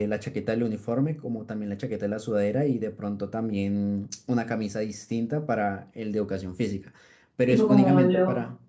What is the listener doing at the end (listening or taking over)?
taking over